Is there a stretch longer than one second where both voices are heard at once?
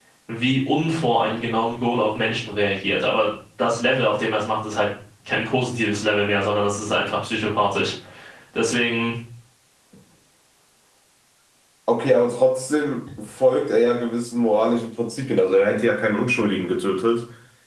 No

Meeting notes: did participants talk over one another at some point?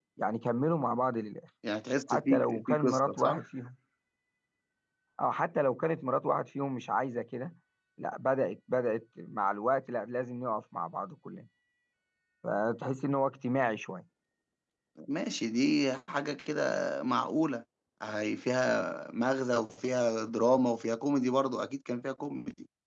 Yes, from 2.1 s

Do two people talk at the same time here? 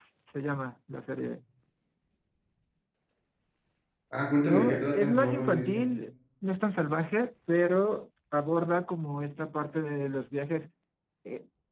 Yes, from 4.4 s

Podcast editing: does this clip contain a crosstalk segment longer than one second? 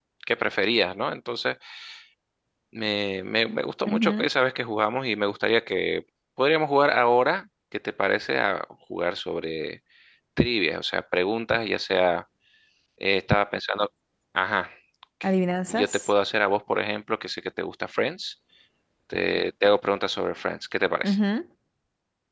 No

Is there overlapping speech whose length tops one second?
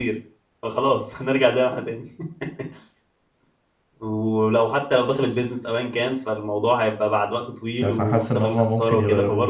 Yes, from 7.8 s

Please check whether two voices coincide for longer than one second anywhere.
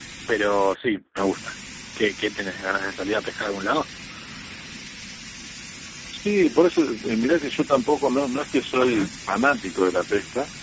No

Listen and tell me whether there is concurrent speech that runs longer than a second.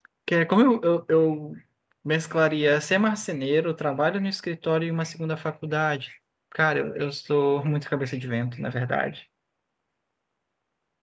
No

